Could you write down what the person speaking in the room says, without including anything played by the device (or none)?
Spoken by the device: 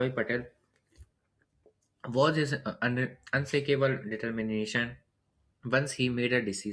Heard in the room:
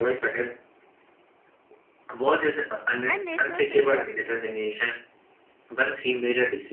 and national security.